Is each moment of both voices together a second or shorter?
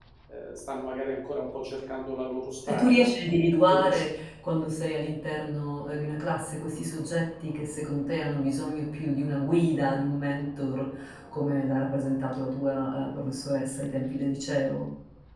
Yes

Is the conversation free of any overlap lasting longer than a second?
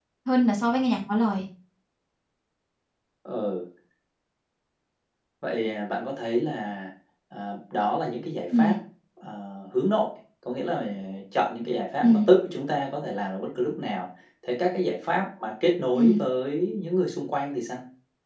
Yes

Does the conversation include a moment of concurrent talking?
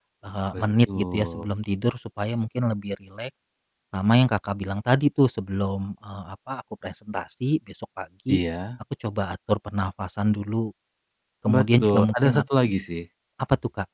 Yes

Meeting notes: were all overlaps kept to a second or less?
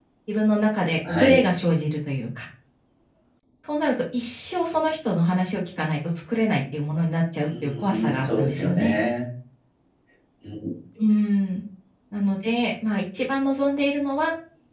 No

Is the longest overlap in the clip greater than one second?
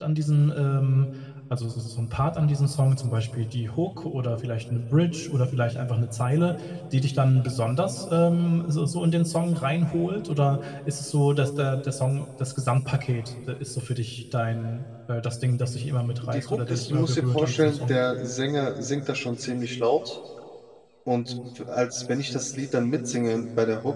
Yes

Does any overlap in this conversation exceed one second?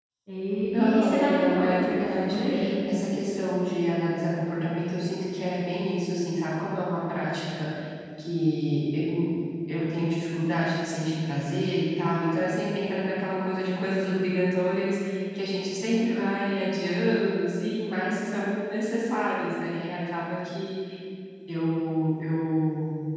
Yes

